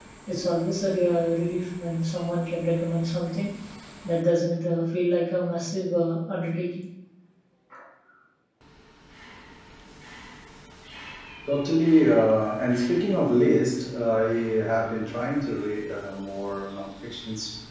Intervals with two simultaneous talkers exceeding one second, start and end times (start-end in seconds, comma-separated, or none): none